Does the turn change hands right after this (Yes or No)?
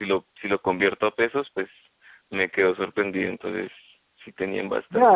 Yes